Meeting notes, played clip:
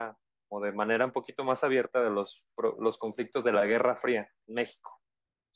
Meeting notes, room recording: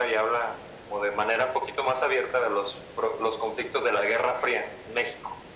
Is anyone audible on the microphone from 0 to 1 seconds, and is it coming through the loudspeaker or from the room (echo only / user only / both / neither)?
echo only